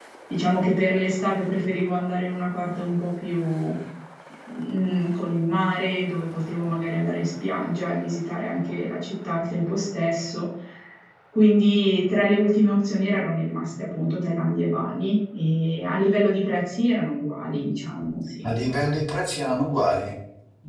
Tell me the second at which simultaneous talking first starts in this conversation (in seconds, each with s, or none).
none